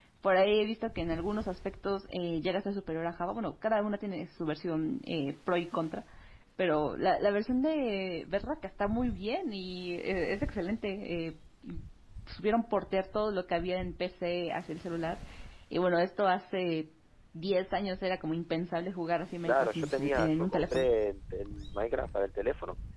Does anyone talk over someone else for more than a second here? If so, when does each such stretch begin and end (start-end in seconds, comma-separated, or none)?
19.4-20.9